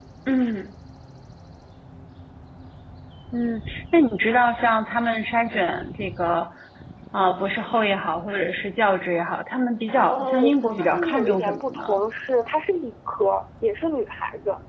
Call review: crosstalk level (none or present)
present